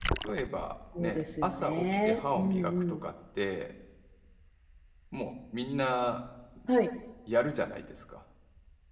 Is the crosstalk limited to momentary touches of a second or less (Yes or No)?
No